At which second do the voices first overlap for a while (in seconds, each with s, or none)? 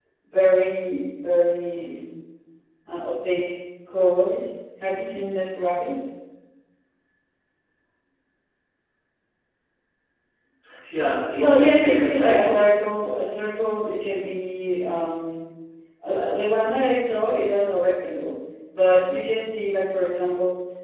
11.4 s